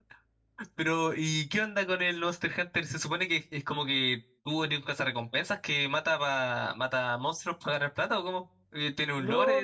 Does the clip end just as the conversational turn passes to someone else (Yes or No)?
Yes